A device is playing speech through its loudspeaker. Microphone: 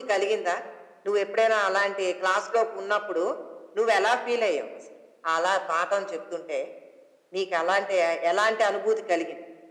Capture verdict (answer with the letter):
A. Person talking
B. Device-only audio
B